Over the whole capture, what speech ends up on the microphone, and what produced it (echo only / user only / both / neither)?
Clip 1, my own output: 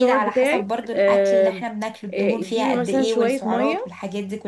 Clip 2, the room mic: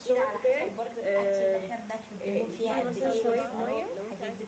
both